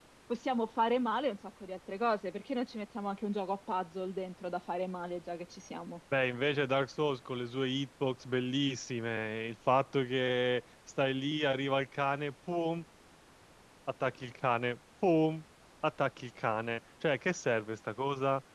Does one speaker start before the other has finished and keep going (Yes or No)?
No